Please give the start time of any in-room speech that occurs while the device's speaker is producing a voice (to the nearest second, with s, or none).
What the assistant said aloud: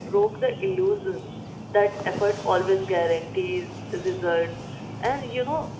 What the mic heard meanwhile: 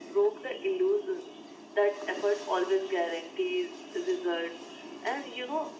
none